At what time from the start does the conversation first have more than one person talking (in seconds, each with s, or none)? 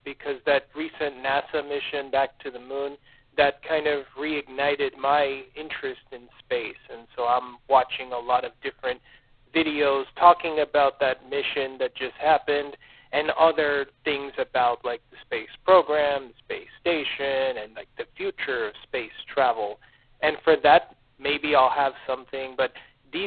none